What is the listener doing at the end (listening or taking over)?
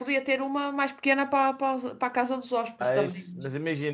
taking over